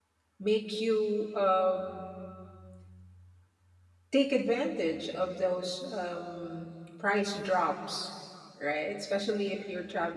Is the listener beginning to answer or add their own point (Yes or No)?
No